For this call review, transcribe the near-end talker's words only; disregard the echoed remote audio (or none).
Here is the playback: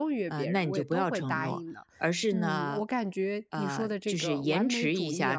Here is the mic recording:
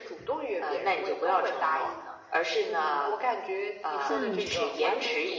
嗯